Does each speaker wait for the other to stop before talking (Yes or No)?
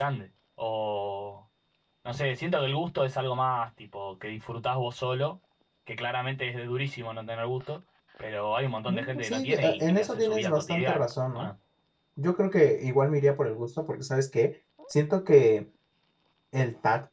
No